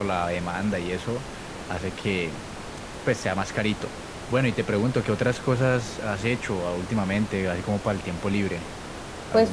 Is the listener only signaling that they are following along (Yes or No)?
No